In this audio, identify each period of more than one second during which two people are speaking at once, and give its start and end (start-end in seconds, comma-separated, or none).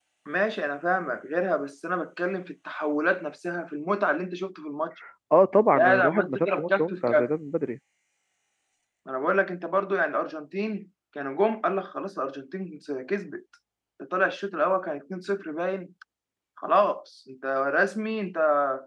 5.6-7.3